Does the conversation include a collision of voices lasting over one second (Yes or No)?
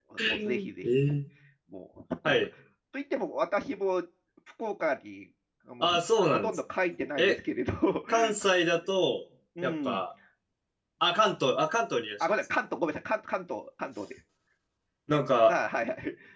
No